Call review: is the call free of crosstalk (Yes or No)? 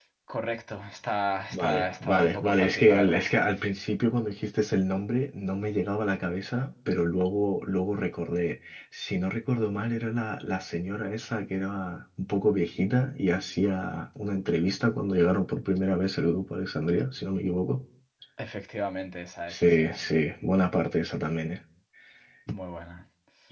No